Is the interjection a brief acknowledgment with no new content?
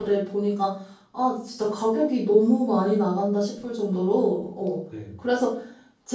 Yes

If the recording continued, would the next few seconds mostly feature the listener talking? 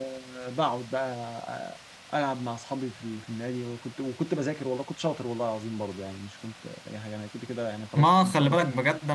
Yes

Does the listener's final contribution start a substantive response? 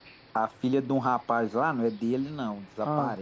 No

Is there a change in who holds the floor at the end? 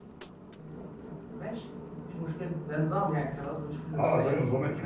Yes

